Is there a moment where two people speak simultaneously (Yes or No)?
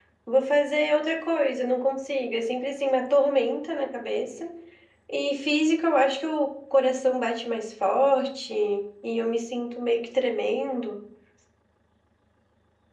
No